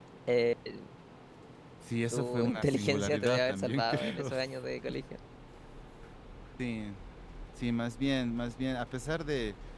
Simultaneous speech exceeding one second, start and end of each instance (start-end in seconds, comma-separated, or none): 2.1-4.3